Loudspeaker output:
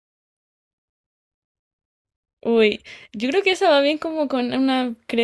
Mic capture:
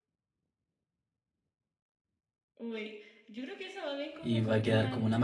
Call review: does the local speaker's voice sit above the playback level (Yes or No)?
Yes